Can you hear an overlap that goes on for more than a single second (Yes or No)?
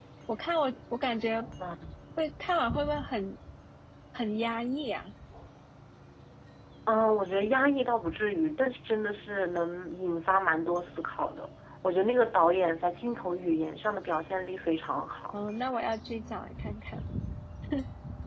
No